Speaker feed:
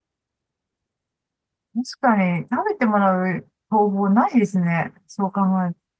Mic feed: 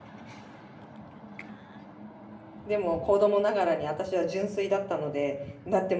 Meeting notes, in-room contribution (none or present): present